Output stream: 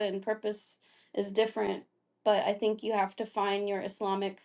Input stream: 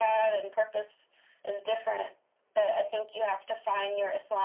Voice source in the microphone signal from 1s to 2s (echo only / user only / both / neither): echo only